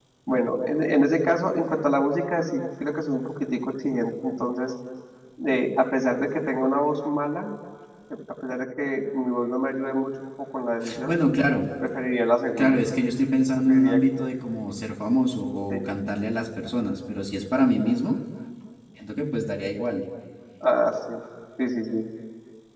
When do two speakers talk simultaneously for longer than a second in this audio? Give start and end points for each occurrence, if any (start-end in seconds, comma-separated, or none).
none